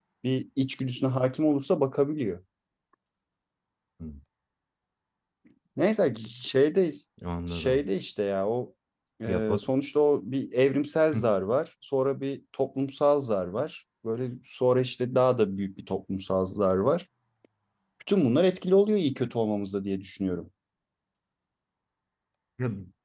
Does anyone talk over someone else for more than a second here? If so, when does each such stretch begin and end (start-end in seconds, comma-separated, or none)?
none